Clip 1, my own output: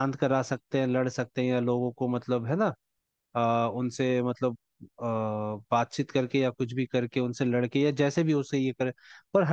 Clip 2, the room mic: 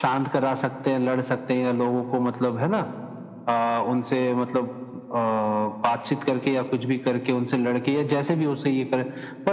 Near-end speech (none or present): none